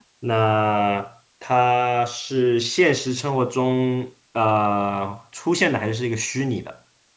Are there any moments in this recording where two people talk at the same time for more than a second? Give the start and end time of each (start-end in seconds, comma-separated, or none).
none